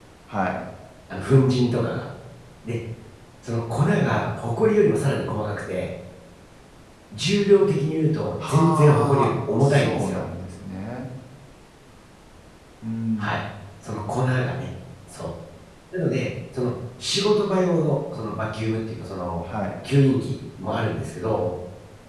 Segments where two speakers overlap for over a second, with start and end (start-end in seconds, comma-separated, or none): 8.5-10.2